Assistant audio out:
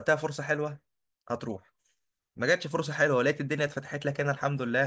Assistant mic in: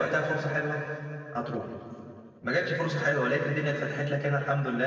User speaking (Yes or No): No